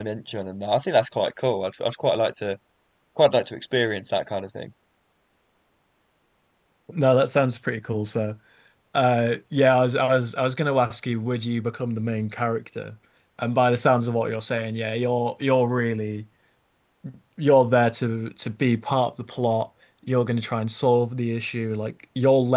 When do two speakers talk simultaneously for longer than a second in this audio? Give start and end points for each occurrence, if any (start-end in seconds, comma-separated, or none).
none